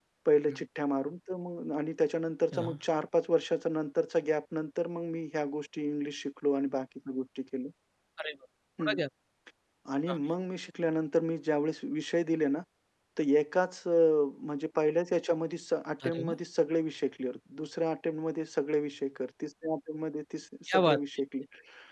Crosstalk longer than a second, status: none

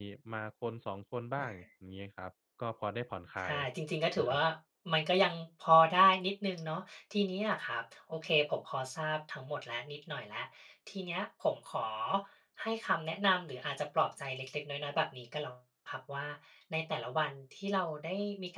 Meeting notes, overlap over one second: none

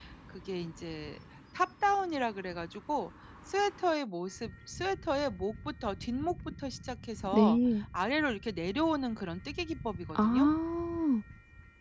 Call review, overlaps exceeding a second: none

